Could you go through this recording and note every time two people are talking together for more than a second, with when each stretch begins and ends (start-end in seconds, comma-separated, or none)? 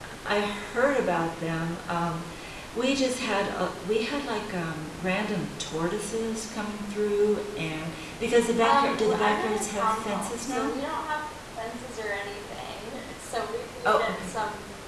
8.6-10.7